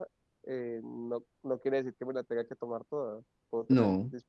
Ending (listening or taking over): listening